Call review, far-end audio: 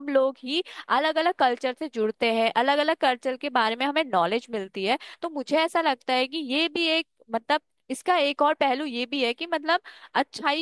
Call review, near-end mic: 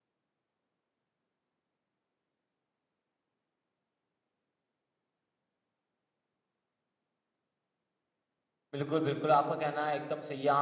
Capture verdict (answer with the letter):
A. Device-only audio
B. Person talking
B